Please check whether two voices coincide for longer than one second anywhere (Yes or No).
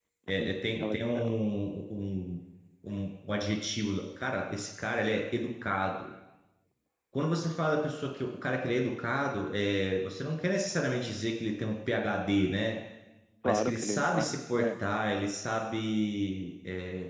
Yes